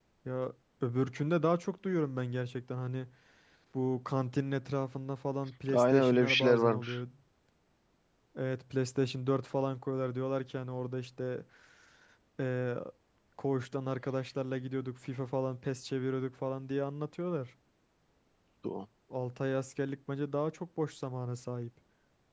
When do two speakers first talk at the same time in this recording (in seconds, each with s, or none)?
5.7 s